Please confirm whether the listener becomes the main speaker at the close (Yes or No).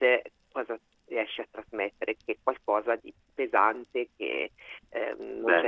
No